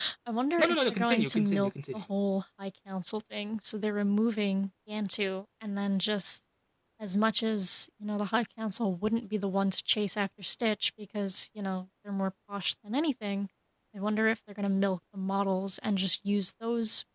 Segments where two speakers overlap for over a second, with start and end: 0.6-2.0

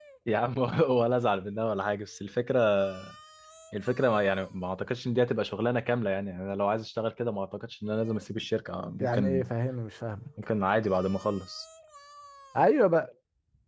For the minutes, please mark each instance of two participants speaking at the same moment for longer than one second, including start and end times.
none

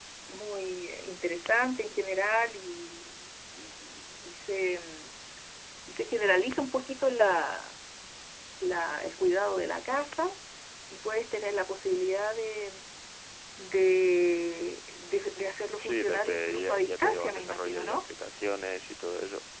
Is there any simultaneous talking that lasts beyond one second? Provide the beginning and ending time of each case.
15.8-18.1

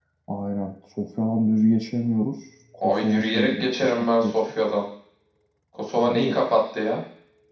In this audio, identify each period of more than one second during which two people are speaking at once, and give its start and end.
2.8-4.4

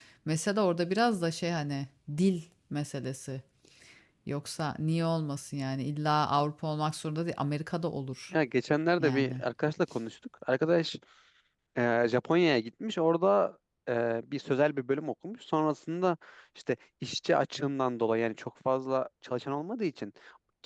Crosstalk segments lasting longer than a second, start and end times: none

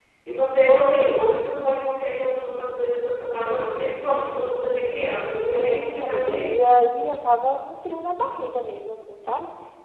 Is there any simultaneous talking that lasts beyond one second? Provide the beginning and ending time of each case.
5.4-6.6

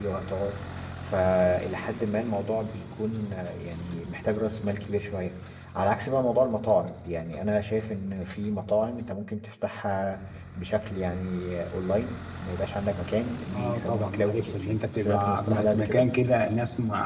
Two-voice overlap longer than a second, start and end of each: 13.5-16.1

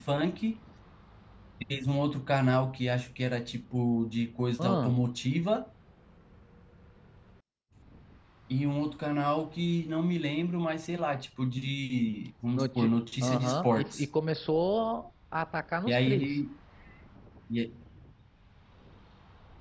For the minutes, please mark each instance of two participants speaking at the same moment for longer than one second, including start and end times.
12.5-14.0

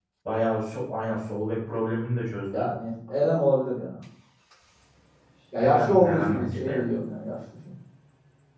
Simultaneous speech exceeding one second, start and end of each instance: 5.6-6.8

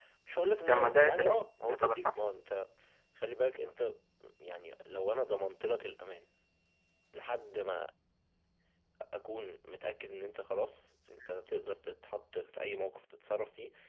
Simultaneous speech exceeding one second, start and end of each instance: 0.7-2.2

